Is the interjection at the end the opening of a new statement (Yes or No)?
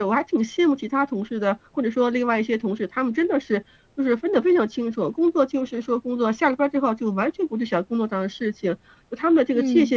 No